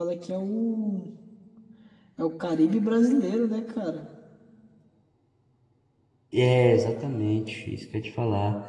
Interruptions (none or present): none